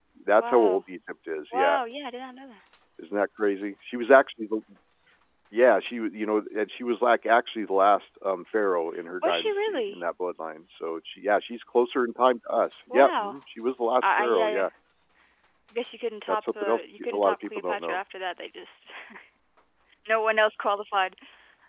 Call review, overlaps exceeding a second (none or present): present